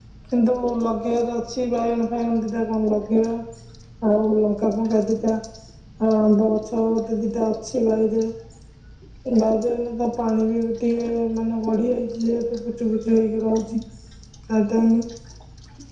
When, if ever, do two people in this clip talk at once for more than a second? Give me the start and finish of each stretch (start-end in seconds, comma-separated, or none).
none